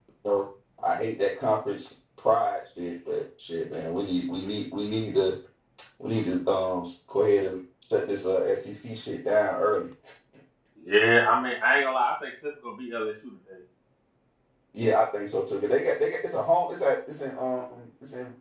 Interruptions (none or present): none